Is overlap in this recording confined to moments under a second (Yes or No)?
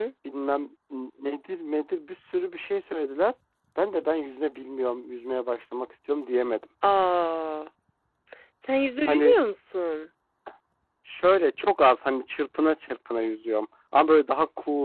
Yes